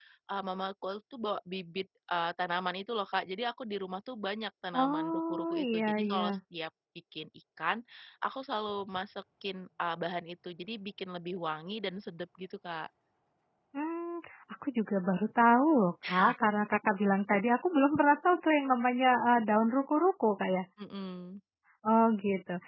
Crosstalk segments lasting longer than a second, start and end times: 4.7-6.4

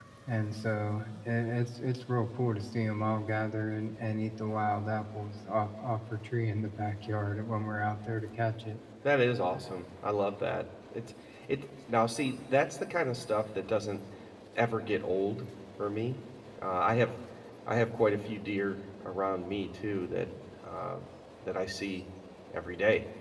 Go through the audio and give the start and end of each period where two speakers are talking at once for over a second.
none

